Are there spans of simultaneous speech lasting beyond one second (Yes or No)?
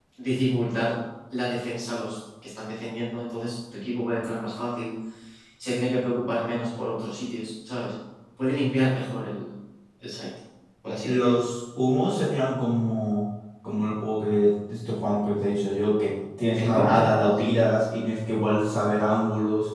No